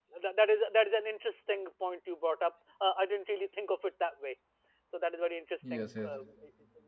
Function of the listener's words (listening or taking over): listening